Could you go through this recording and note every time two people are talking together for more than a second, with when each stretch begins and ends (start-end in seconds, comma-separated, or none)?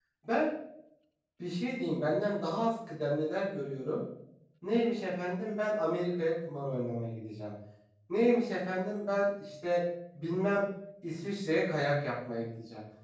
none